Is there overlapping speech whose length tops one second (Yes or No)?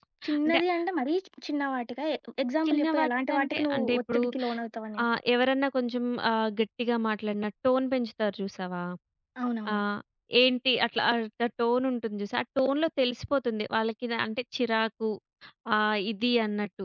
Yes